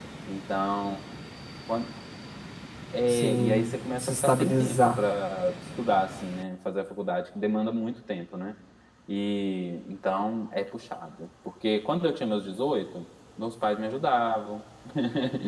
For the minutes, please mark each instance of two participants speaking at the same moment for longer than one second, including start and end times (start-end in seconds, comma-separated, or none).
3.1-5.0